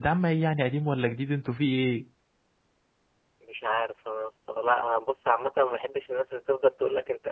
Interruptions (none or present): none